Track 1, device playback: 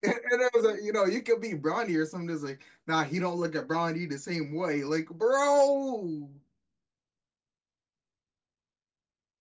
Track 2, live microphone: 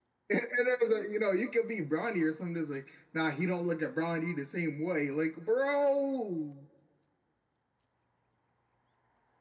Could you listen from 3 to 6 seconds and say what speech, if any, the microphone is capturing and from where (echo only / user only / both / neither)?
echo only